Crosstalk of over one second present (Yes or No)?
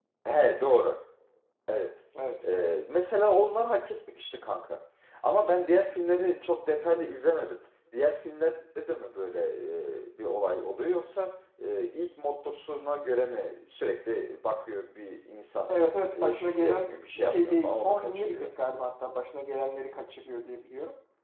Yes